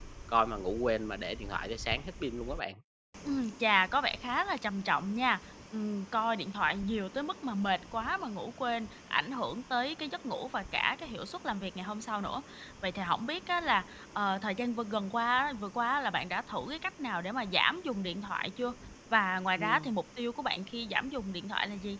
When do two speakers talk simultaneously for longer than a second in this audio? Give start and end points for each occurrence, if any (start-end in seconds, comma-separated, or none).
none